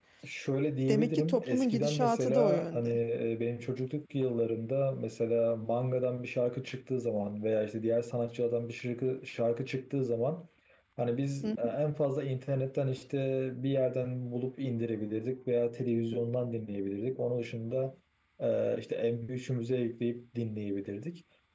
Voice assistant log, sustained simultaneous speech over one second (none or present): present